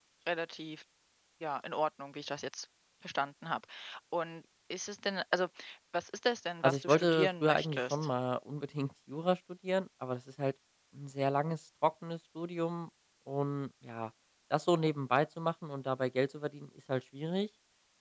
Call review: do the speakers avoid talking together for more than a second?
No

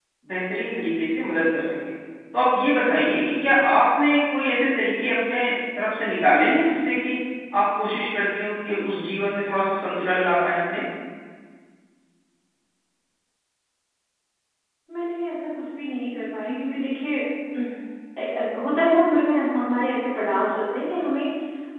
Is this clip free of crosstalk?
Yes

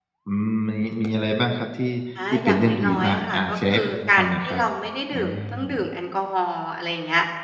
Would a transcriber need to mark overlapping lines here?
Yes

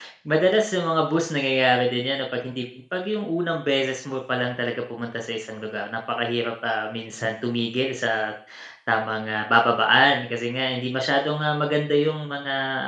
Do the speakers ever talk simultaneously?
No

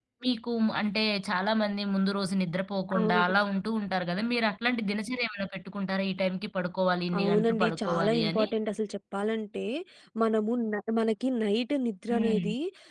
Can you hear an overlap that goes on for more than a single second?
Yes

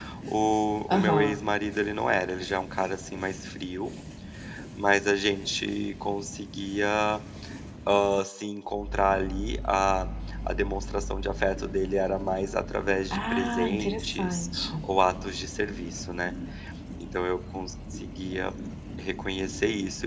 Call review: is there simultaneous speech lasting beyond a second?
Yes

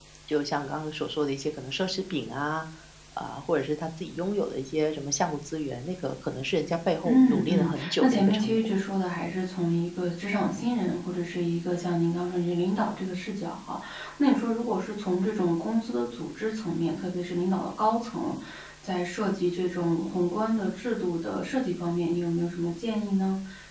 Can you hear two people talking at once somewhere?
Yes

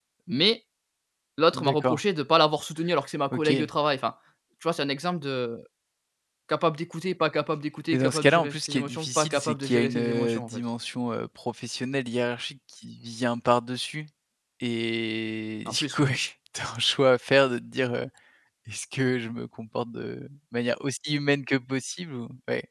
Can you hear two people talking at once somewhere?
Yes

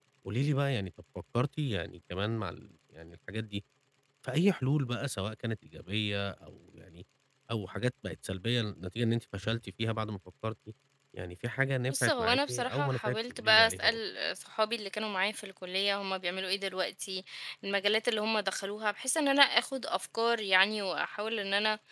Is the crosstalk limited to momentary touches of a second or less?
No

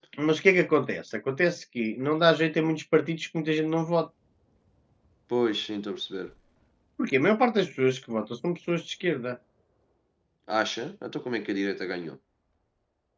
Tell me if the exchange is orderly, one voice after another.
Yes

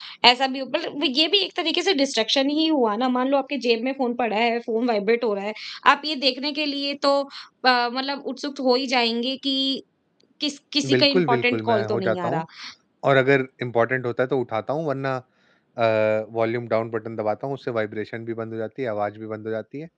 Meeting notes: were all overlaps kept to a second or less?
No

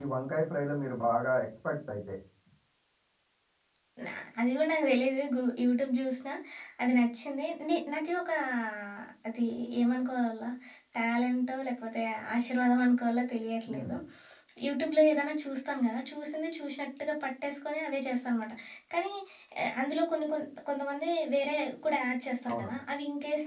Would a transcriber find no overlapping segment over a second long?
Yes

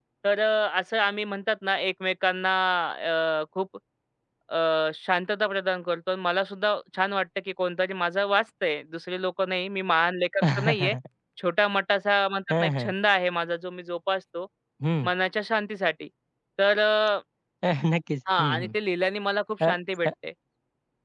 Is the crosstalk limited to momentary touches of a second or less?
Yes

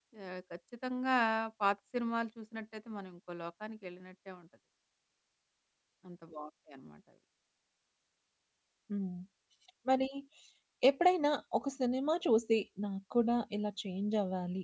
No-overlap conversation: Yes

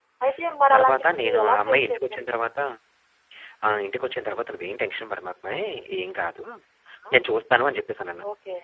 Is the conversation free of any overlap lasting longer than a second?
No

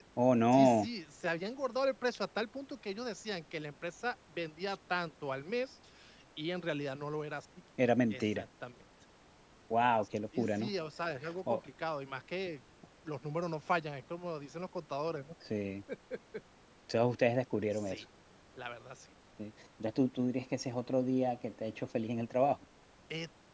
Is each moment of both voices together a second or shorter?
Yes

